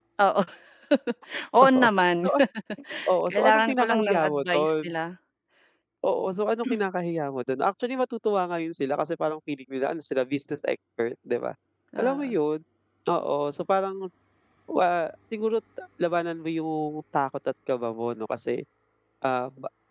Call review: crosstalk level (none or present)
present